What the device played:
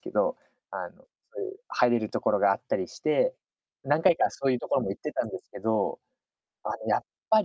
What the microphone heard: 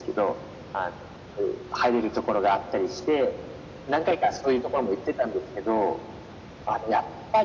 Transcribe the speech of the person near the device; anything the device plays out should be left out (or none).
none